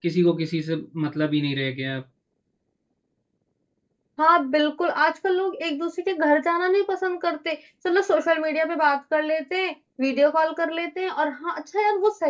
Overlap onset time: none

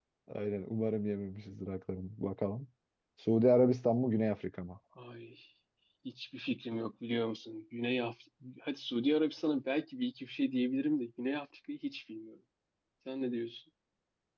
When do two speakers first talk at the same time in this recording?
none

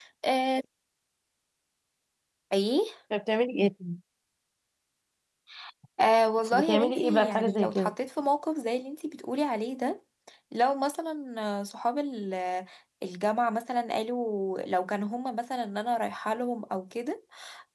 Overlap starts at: 6.5 s

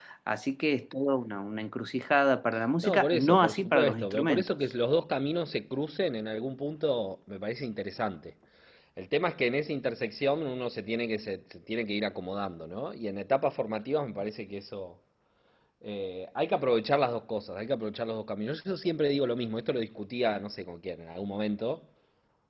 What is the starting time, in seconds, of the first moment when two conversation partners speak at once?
2.8 s

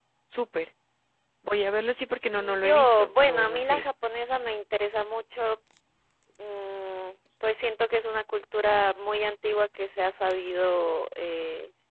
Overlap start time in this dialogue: 2.4 s

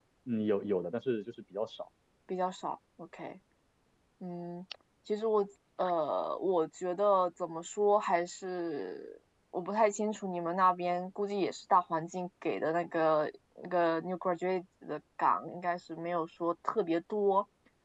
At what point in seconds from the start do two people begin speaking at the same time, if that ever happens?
none

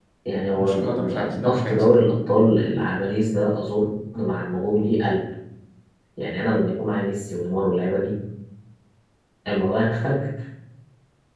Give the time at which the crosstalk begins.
0.6 s

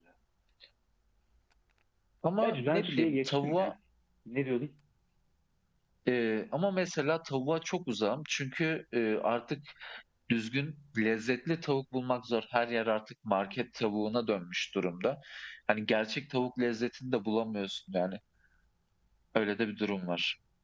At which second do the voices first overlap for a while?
2.4 s

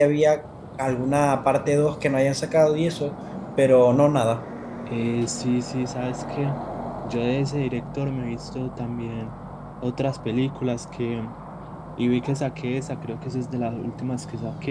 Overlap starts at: none

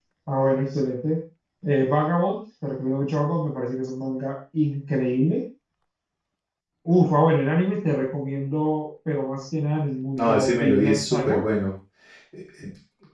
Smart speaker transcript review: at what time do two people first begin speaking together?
10.2 s

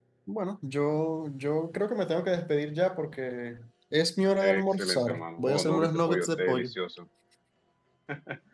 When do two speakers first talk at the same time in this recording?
4.4 s

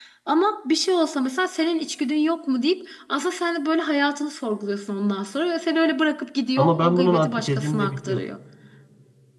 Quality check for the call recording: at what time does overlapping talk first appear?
6.6 s

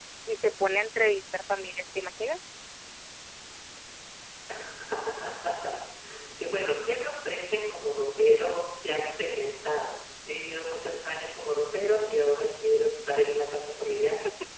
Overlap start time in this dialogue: none

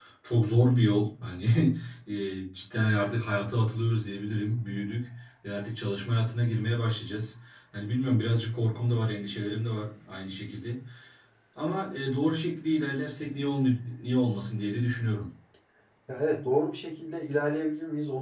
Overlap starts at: none

